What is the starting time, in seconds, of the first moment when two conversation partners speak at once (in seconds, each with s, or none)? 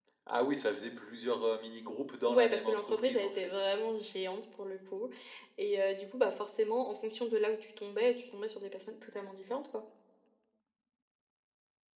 2.3 s